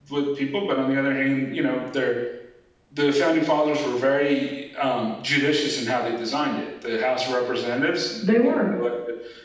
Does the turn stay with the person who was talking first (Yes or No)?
Yes